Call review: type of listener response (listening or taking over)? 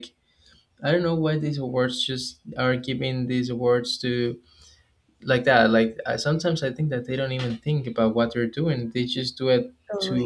listening